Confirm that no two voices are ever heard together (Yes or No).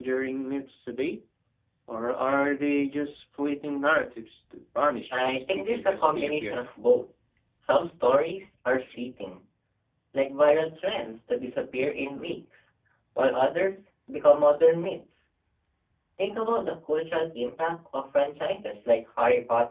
No